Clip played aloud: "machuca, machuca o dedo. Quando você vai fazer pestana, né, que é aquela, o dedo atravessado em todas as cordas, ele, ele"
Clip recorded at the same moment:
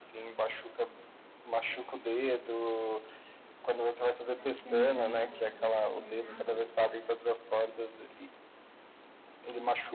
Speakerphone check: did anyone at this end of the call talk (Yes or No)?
Yes